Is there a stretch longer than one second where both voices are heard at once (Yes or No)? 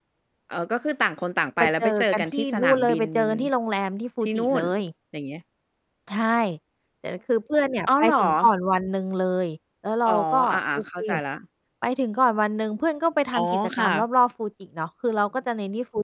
Yes